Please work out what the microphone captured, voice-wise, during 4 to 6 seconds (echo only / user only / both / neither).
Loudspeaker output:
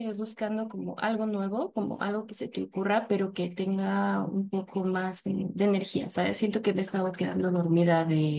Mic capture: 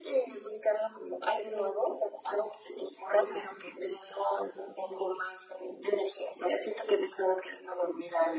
echo only